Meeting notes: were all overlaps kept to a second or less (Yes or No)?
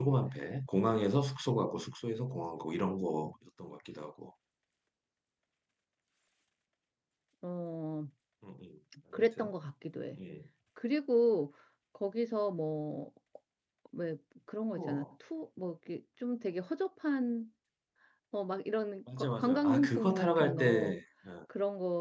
No